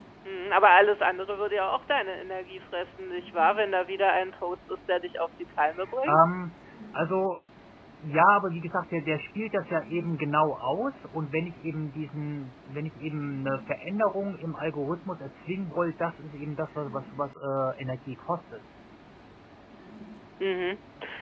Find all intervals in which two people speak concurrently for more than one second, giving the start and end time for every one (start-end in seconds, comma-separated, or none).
none